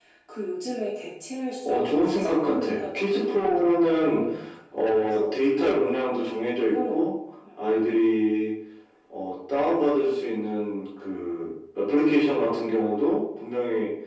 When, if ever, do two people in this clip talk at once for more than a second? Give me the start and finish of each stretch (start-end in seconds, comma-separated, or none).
1.6-4.2